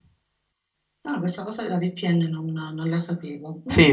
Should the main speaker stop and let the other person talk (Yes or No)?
Yes